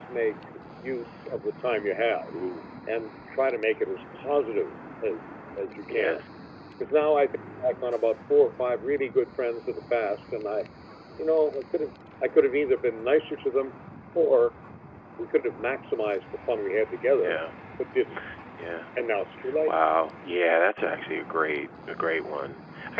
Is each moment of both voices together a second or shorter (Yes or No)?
Yes